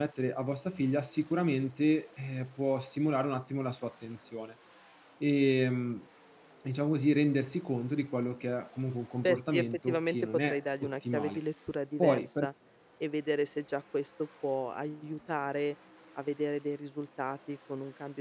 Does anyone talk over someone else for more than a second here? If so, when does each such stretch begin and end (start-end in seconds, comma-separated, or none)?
9.2-11.4